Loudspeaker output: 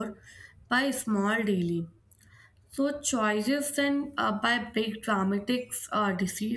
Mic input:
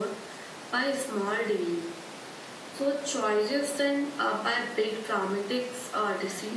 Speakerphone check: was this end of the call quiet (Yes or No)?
Yes